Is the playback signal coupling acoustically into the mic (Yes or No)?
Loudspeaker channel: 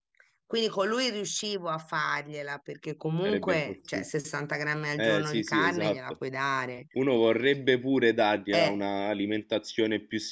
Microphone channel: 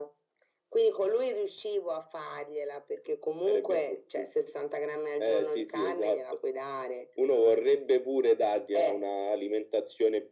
Yes